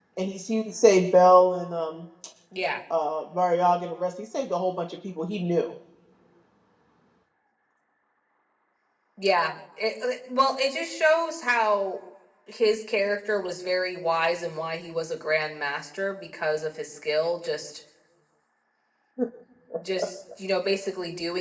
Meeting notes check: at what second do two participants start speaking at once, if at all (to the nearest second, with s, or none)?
none